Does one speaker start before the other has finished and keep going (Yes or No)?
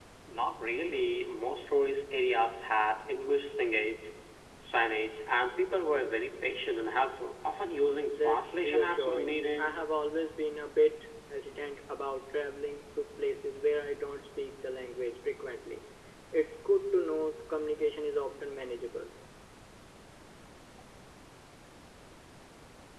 Yes